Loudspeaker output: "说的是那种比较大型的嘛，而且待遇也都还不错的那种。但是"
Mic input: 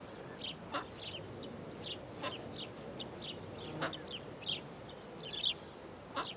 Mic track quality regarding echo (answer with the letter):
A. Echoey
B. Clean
B